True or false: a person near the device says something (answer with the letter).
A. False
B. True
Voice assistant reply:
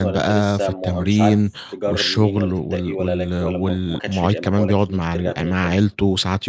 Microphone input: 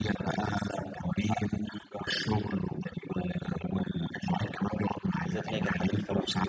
B